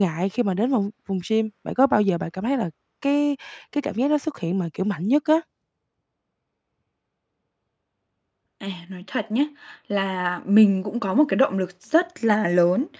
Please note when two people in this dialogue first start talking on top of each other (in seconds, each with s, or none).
none